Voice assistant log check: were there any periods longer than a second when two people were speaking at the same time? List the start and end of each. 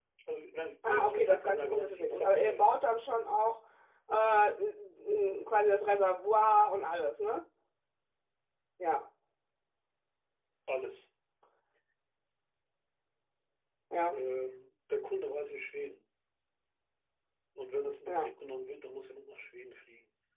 0.9-2.8

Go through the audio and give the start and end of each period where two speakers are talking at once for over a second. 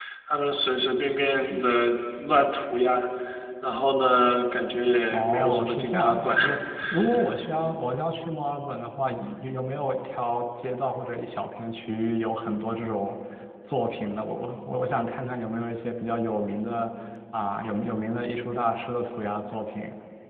5.1-6.4

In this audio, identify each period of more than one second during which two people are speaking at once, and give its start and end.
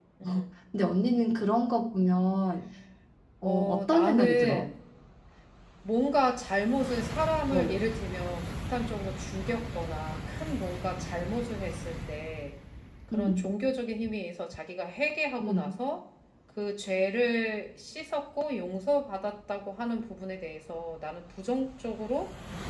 3.4-4.7

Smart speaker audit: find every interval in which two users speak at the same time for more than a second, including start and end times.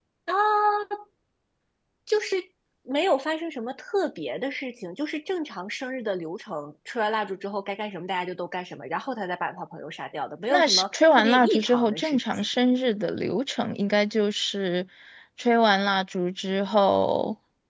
10.5-12.5

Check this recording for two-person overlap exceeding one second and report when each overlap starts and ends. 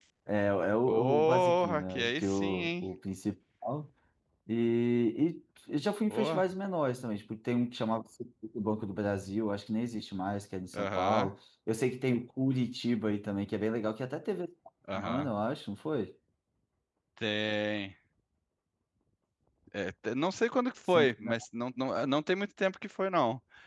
0.9-2.9

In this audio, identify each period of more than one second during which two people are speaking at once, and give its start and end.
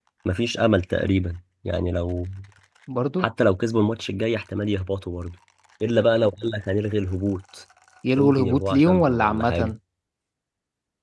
8.2-9.7

